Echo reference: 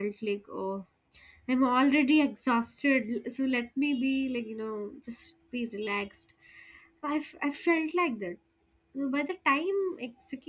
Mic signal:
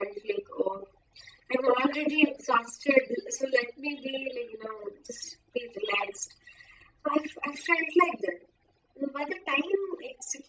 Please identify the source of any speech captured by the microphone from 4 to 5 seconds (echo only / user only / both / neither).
echo only